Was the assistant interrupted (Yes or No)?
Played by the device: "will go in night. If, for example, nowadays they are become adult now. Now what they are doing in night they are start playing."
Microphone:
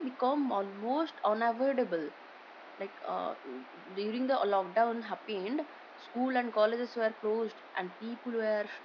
Yes